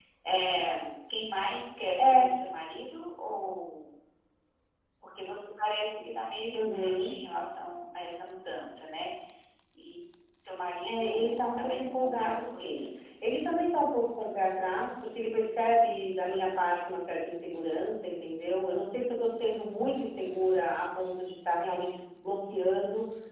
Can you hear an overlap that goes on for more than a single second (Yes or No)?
Yes